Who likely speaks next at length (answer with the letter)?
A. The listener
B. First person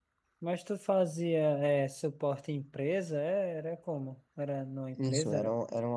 A